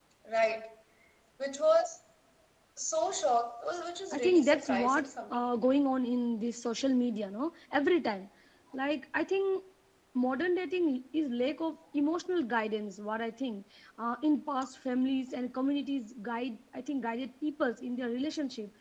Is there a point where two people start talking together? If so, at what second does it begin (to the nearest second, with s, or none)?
4 s